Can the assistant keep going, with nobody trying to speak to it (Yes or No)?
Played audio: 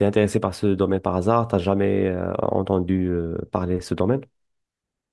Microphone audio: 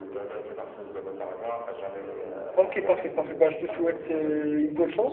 No